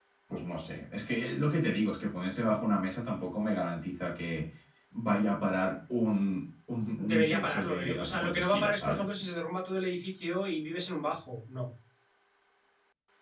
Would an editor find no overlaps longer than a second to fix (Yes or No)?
No